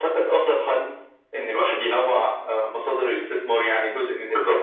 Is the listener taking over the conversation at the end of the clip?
No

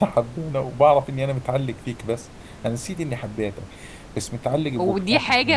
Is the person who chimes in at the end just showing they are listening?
No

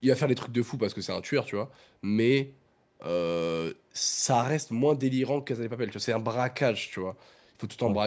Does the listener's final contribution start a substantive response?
No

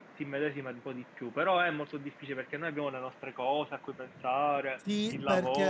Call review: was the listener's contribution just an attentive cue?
No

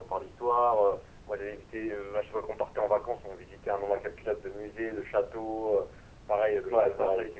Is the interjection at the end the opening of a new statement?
No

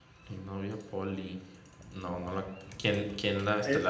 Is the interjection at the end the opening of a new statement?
Yes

